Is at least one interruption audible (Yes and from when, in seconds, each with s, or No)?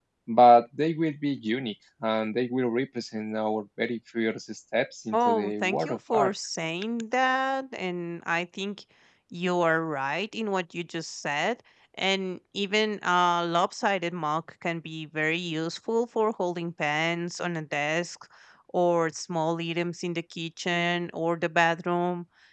Yes, from 5.1 s